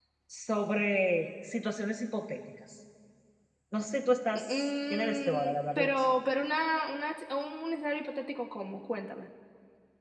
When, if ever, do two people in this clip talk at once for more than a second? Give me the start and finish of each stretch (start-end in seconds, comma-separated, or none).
4.3-6.0